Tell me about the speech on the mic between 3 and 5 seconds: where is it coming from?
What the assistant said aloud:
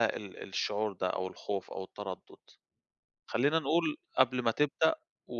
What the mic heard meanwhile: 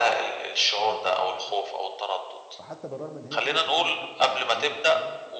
both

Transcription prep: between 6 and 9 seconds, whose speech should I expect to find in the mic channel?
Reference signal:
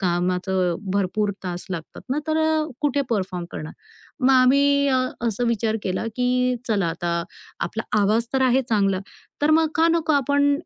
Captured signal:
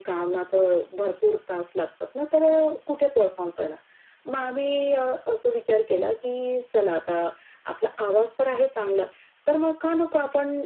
echo only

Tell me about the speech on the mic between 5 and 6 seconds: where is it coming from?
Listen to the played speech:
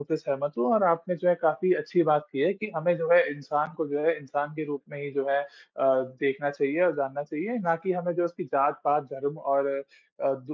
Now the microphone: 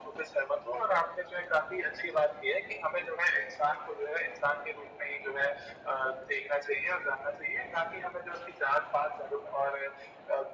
echo only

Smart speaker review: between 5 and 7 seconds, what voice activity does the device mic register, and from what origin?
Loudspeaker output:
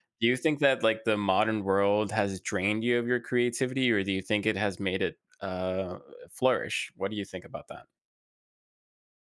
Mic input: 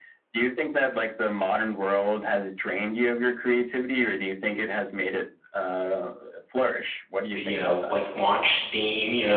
echo only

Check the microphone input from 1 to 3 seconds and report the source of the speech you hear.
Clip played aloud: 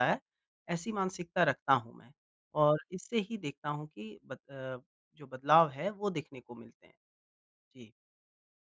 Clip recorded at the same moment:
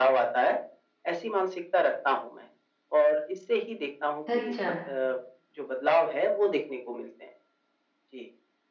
echo only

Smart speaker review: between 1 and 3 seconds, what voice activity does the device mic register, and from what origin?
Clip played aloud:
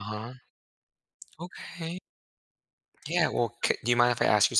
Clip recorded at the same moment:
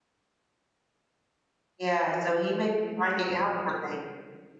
user only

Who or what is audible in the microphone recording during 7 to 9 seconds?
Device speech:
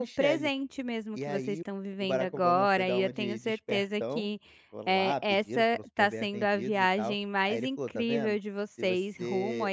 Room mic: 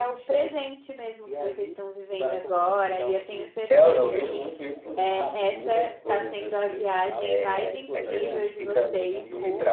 both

